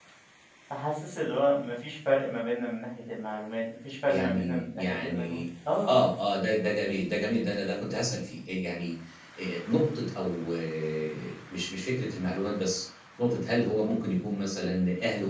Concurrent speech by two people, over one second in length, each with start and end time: 4.1-5.4

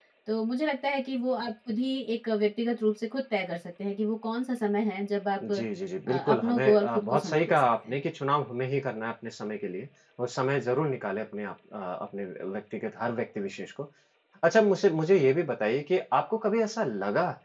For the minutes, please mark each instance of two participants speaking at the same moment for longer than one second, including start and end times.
6.2-8.0

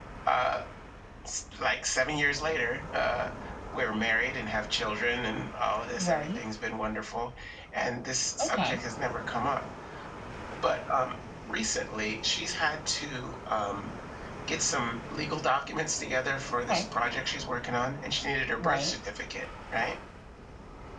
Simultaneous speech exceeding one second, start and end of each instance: none

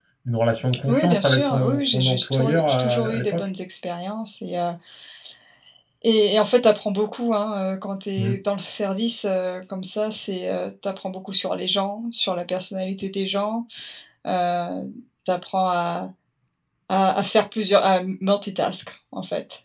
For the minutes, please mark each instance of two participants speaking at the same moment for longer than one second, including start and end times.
0.9-3.4

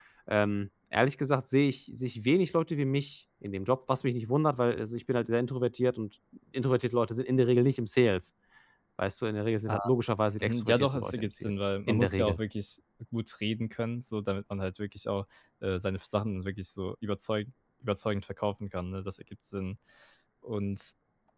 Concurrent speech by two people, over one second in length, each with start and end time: 10.4-12.4

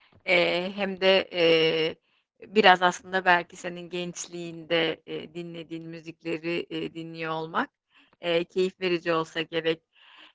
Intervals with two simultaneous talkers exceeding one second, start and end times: none

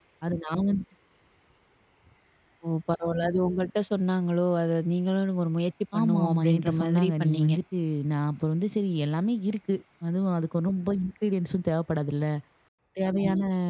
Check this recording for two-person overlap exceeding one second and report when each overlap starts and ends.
6.0-7.5

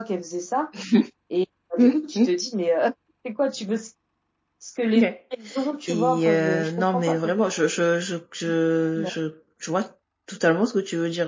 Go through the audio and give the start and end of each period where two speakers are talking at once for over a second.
5.9-7.3

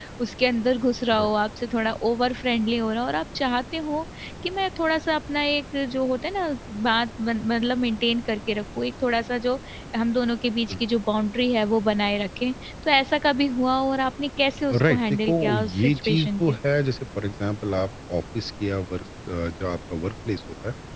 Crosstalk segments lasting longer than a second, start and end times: 14.7-16.5

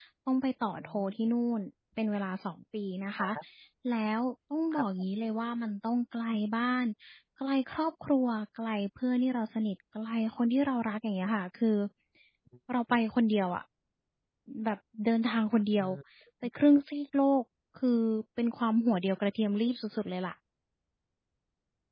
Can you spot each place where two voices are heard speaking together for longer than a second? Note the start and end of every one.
none

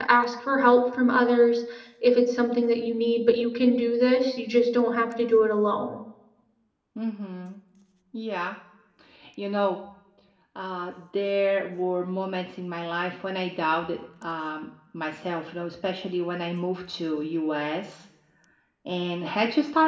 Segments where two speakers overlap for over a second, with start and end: none

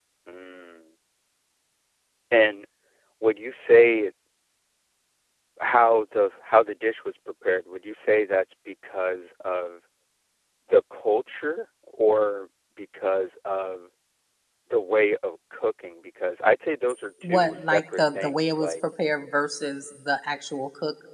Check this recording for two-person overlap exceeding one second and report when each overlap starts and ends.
17.2-18.7

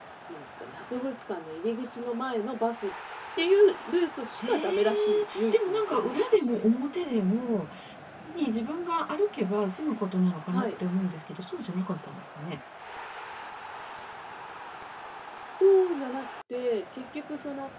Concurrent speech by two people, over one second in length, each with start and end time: 4.4-6.4

